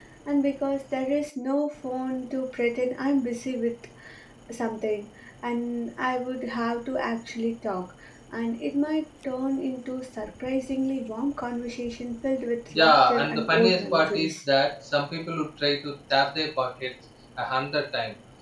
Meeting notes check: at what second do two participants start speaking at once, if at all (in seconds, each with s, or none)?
12.7 s